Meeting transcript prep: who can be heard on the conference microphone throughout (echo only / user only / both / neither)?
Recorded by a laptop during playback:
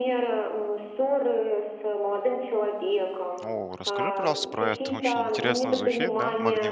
both